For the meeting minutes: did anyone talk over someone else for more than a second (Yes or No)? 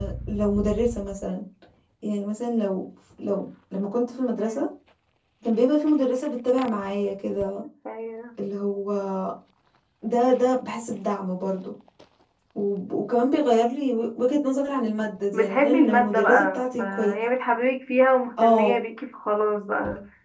Yes